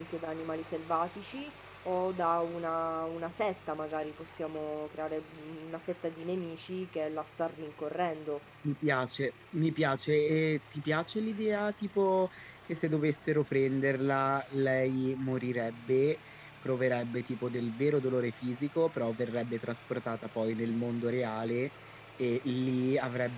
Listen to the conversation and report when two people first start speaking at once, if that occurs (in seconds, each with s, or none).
none